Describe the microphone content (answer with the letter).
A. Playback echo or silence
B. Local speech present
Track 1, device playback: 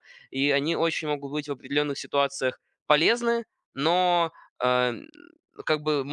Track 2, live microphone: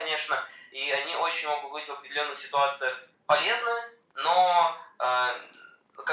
A